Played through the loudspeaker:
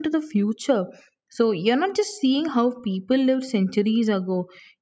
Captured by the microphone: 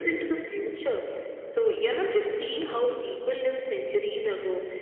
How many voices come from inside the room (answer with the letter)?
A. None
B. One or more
A